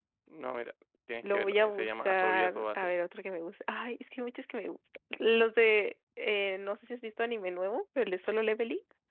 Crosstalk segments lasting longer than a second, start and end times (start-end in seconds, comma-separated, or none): 1.3-2.9